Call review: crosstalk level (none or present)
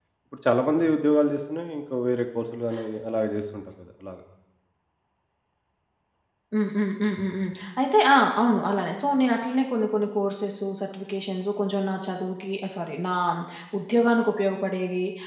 none